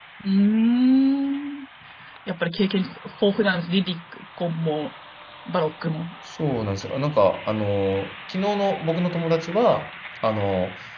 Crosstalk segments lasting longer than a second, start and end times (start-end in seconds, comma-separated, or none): none